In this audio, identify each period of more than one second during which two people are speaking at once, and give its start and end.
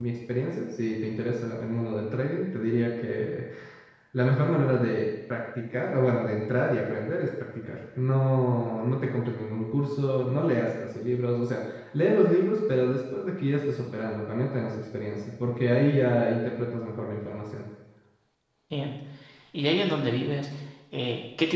none

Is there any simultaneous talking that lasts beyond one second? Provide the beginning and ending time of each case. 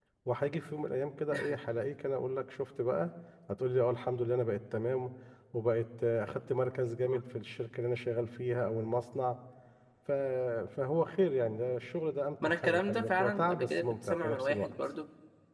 12.4-14.7

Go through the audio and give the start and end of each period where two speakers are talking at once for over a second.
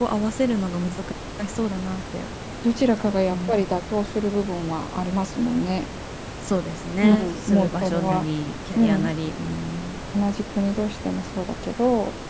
7.0-8.3

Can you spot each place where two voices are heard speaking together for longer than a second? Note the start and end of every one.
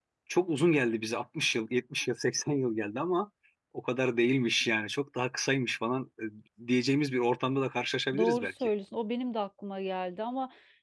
none

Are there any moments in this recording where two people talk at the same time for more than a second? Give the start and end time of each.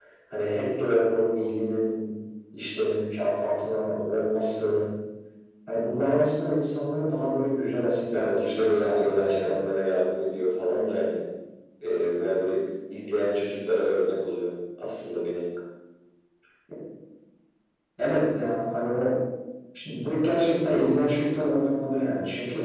8.1-9.6

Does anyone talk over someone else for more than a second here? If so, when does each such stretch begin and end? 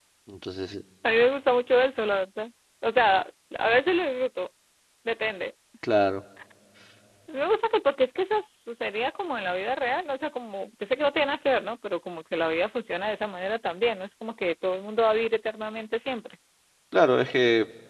none

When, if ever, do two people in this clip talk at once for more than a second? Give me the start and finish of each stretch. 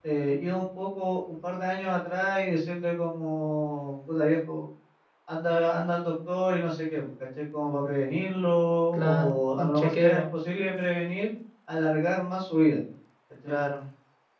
8.9-10.2

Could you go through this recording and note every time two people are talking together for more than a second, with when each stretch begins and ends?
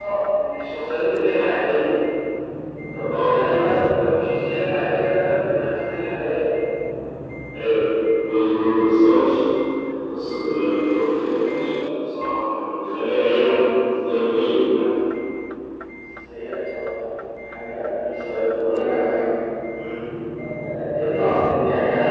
none

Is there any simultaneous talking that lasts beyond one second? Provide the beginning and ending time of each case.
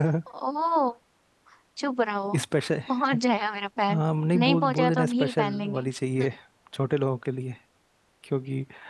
4.4-5.8

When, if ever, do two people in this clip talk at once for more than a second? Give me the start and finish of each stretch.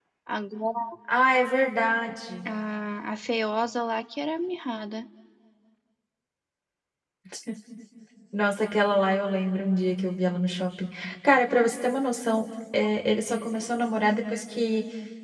none

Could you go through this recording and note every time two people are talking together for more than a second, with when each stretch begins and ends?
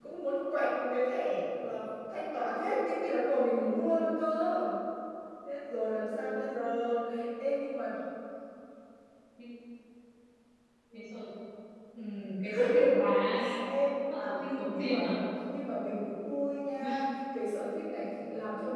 none

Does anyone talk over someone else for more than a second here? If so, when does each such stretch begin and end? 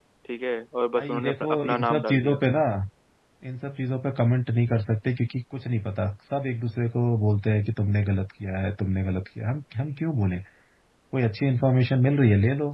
0.9-2.4

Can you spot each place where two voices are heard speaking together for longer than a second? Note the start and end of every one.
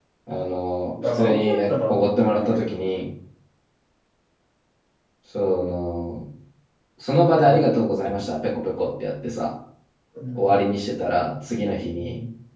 1.1-2.7

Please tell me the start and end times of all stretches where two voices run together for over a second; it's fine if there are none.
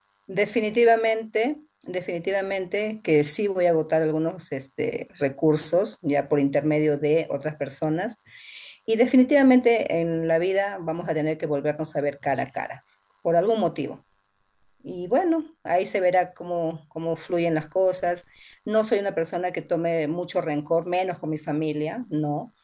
none

